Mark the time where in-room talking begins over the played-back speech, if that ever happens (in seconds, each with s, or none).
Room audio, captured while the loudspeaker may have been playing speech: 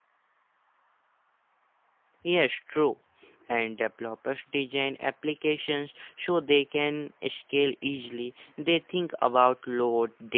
2.2 s